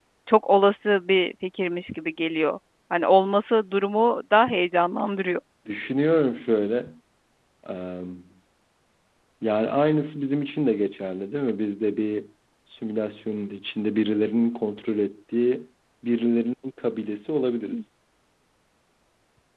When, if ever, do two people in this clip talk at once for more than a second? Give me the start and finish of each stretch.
none

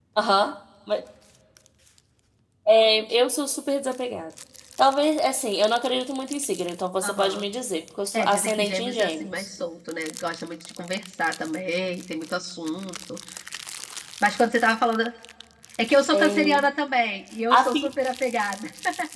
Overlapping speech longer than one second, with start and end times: 8.1-9.5

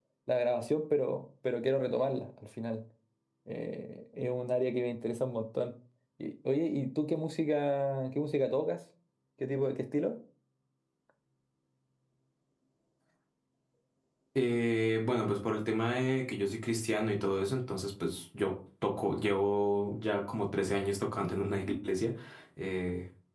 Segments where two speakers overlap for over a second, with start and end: none

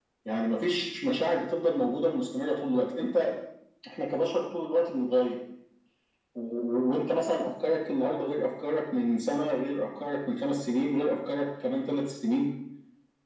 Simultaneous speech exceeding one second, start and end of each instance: none

